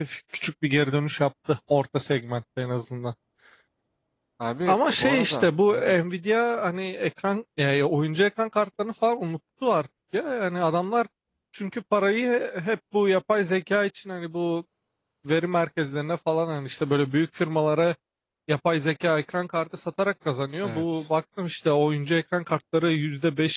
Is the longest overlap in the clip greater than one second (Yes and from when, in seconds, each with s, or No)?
Yes, from 4.7 s